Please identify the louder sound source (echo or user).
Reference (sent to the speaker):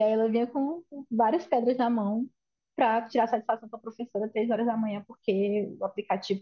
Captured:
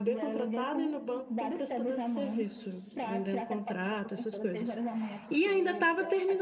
user